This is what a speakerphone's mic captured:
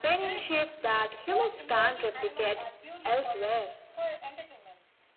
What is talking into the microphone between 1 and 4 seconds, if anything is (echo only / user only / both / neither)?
both